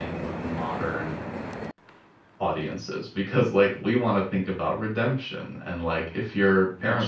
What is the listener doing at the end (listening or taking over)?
listening